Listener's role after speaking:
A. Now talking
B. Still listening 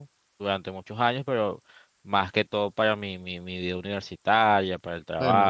A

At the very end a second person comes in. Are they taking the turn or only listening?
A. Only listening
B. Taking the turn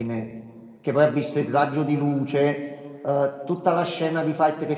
A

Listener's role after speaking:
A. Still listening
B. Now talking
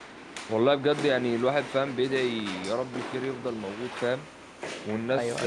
A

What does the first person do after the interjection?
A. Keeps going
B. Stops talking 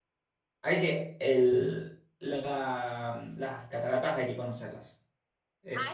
B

